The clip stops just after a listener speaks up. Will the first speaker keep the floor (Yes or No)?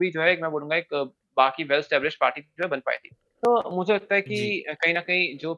Yes